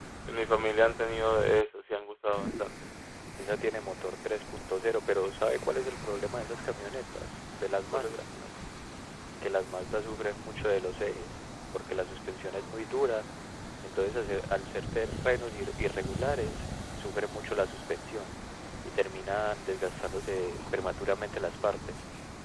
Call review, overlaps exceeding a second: none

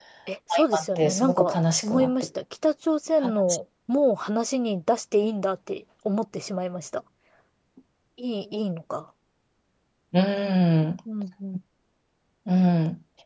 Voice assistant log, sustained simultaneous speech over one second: present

